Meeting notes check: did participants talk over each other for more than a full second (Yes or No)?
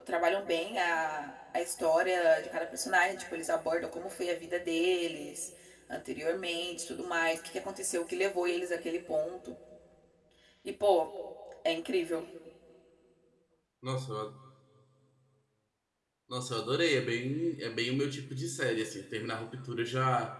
No